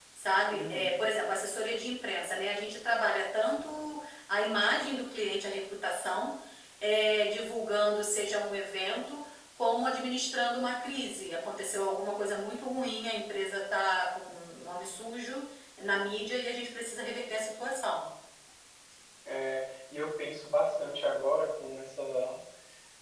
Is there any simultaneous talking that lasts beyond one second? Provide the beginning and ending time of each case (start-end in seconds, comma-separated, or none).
none